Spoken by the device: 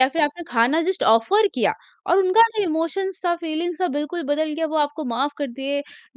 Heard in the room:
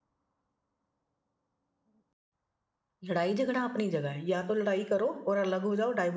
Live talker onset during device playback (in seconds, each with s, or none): 3.0 s